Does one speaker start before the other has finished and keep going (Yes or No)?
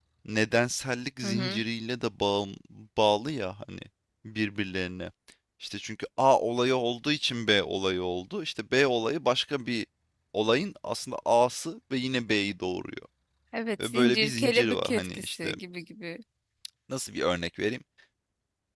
Yes